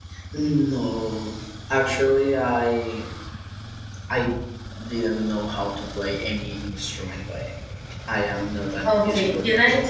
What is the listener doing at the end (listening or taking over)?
taking over